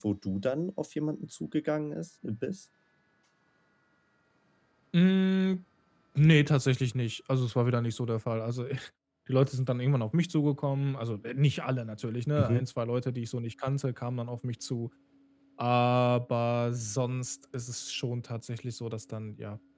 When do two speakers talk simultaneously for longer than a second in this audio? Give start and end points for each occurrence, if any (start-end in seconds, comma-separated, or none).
none